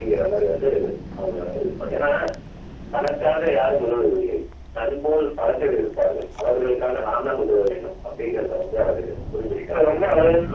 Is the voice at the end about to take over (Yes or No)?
Yes